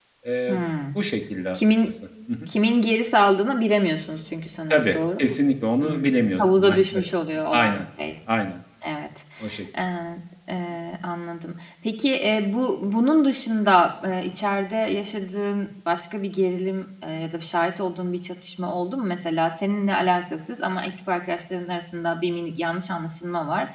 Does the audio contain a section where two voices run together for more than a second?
Yes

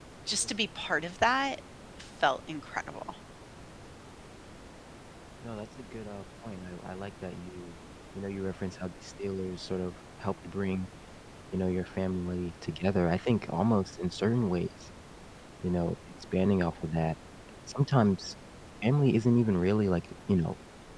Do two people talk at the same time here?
No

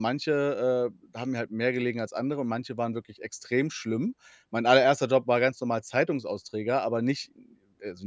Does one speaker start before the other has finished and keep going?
No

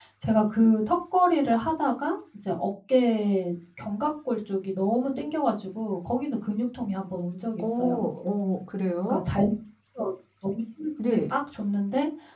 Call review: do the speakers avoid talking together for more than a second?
Yes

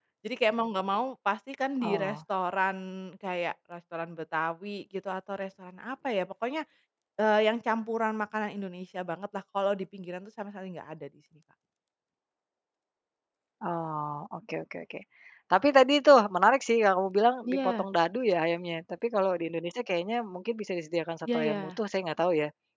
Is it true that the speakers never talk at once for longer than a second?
Yes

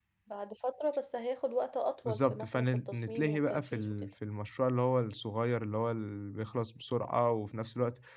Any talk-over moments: Yes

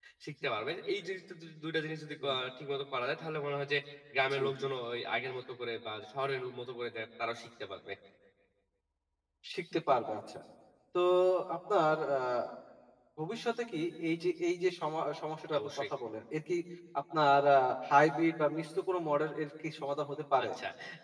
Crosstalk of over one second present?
No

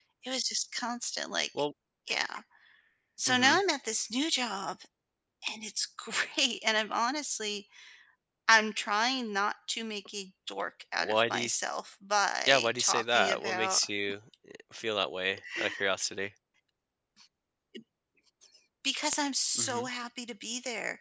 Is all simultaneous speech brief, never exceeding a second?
No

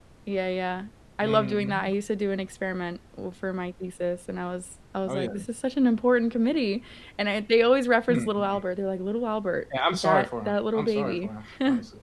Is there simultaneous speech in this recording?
Yes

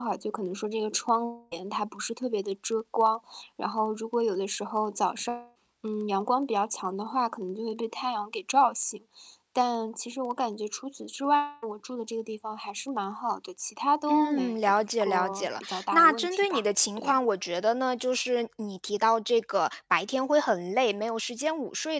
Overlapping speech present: Yes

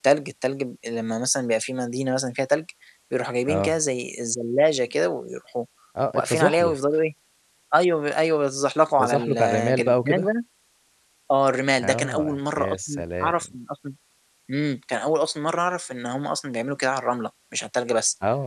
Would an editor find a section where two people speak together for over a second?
Yes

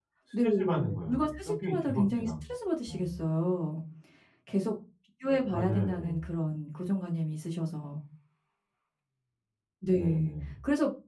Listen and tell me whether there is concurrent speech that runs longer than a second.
Yes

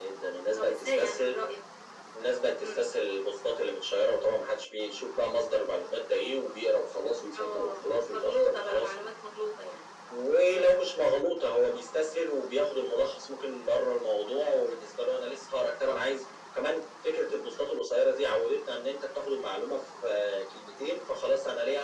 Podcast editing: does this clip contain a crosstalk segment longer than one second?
Yes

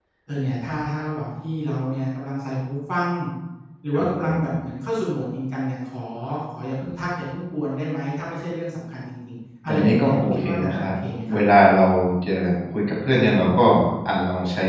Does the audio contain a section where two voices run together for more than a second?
Yes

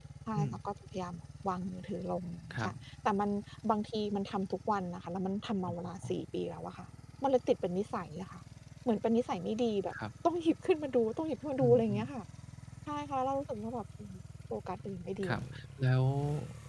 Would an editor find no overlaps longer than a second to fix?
Yes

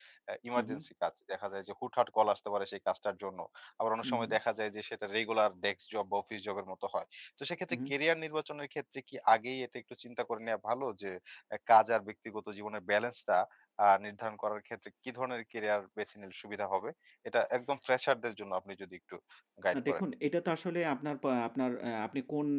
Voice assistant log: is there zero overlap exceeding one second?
Yes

